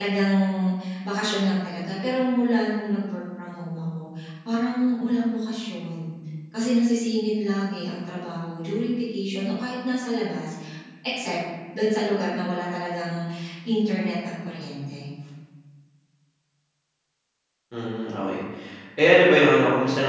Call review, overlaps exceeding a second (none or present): none